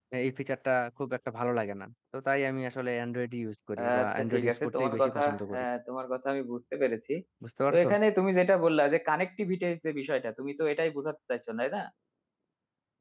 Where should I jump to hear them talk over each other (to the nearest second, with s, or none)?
4 s